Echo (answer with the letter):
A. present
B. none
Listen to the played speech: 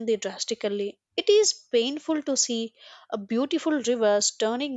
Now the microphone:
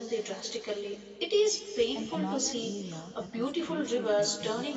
A